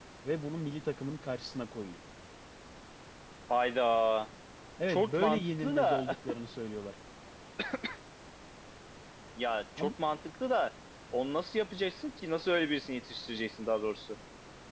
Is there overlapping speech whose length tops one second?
Yes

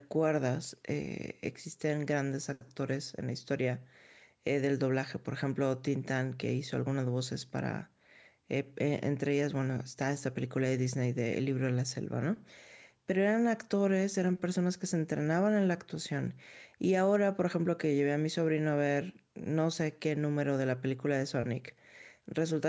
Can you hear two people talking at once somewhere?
No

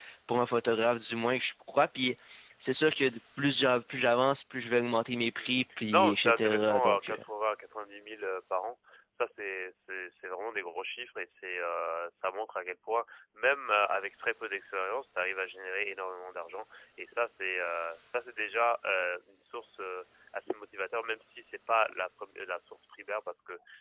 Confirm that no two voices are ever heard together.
No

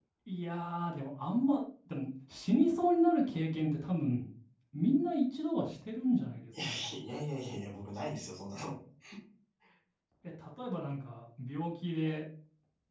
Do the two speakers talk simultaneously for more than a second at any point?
No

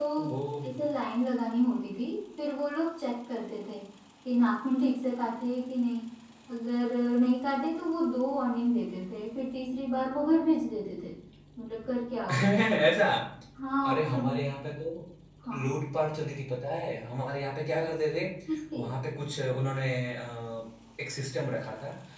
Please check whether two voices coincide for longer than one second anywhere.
No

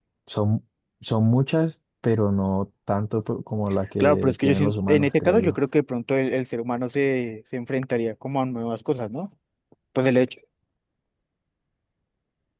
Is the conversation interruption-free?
No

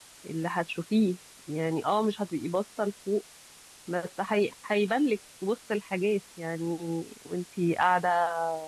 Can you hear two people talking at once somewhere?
No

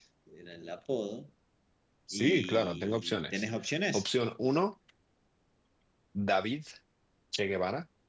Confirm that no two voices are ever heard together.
No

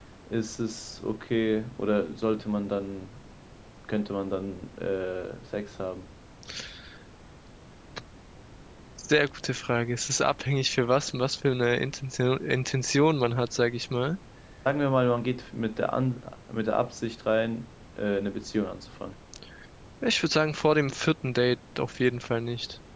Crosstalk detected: No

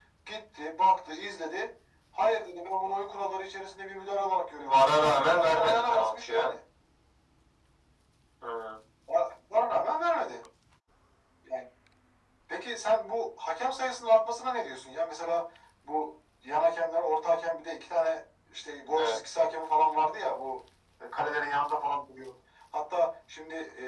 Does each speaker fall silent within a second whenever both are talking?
No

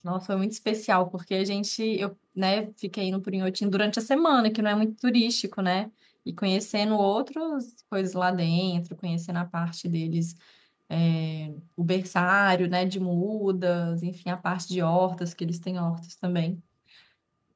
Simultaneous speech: No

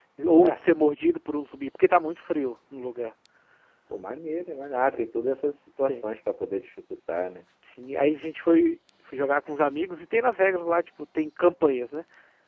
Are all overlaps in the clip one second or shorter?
Yes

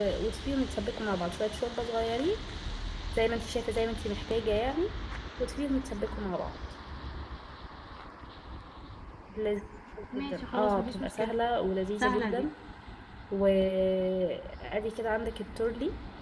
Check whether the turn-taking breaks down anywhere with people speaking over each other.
Yes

